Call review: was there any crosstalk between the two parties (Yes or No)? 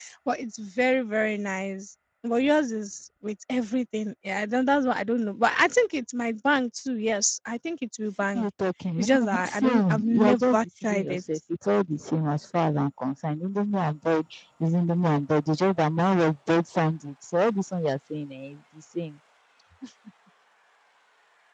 Yes